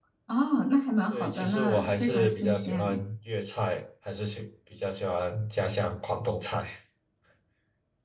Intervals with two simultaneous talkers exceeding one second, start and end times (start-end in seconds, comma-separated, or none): 1.1-3.0